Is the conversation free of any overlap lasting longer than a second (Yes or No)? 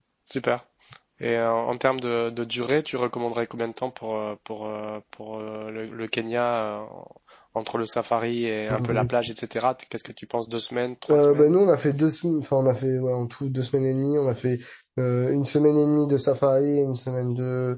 Yes